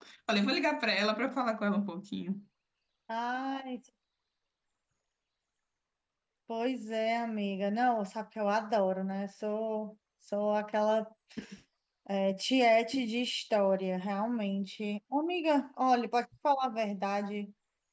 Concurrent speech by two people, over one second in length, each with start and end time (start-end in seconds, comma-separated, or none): none